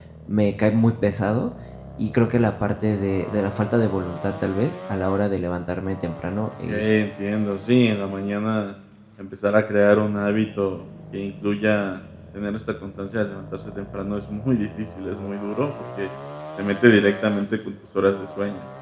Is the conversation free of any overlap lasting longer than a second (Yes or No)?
Yes